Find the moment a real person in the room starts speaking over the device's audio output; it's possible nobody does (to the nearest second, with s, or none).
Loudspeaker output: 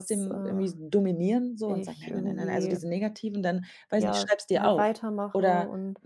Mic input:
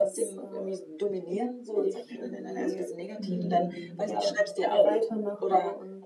3 s